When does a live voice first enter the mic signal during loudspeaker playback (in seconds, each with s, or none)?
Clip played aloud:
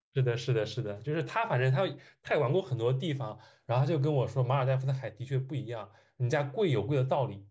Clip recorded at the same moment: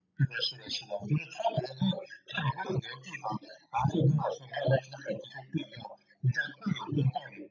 none